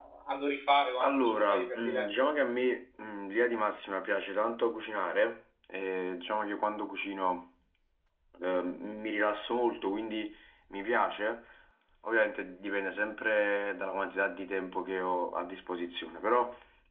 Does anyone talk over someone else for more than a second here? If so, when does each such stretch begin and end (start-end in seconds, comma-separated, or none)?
1.0-2.3